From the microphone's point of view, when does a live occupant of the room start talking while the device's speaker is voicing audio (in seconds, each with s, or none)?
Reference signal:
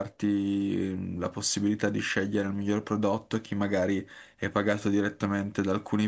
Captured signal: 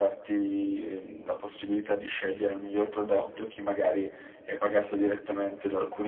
none